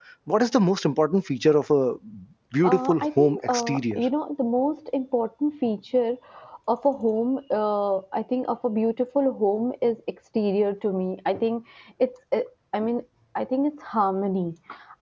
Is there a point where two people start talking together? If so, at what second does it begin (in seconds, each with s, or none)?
2.6 s